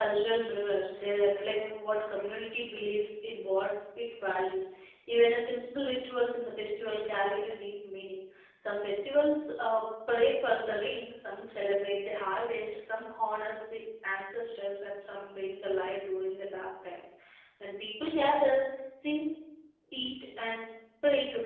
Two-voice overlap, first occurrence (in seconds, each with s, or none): none